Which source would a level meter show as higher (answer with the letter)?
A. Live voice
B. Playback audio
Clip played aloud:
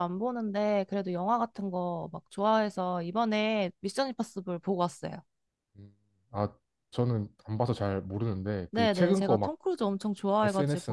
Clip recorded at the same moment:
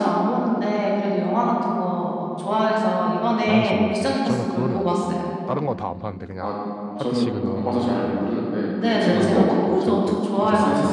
B